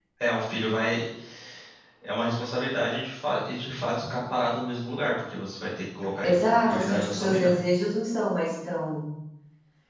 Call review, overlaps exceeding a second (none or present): present